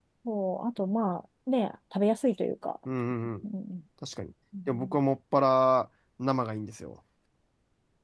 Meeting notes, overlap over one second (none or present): none